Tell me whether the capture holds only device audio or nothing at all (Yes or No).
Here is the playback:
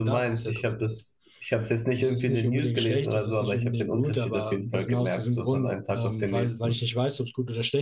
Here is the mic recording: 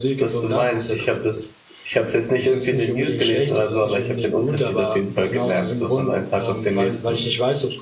Yes